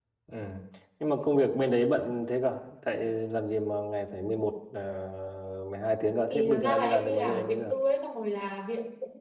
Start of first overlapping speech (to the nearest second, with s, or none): 6 s